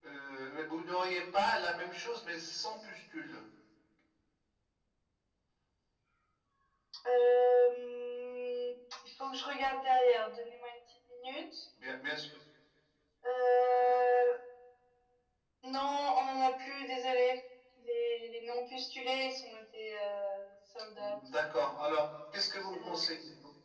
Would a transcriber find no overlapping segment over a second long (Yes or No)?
Yes